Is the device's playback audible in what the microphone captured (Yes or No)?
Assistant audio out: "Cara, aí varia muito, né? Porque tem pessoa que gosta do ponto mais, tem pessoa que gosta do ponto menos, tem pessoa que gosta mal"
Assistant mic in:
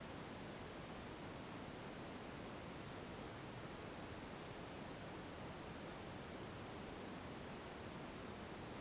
No